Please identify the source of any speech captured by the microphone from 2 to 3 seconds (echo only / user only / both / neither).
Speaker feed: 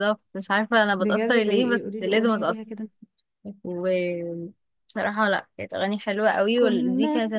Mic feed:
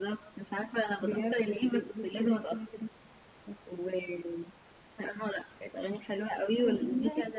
echo only